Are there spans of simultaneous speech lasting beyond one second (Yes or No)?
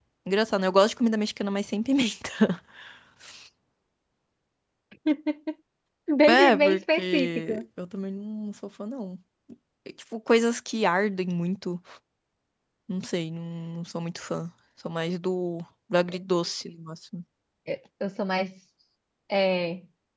Yes